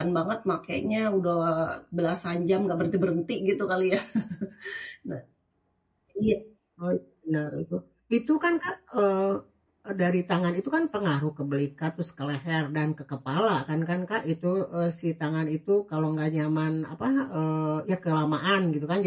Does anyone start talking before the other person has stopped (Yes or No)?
No